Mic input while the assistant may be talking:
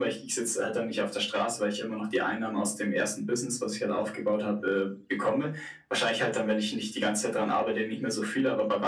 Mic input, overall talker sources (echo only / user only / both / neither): echo only